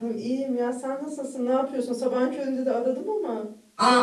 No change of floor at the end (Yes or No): No